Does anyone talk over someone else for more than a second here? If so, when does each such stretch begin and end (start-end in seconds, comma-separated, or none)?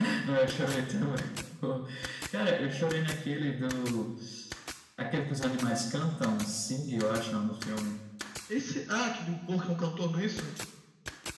none